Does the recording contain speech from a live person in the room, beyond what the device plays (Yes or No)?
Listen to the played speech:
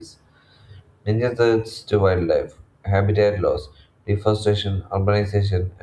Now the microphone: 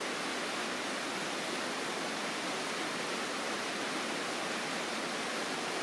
No